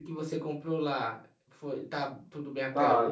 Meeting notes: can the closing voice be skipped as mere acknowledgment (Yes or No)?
No